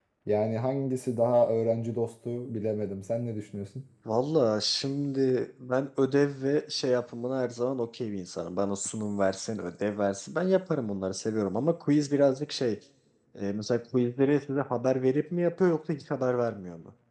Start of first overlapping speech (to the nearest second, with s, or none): none